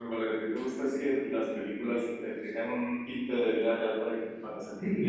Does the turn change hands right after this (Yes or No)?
Yes